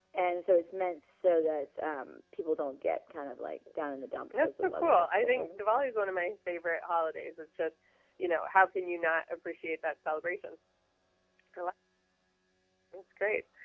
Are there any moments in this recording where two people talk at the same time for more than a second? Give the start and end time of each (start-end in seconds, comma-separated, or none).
4.4-5.9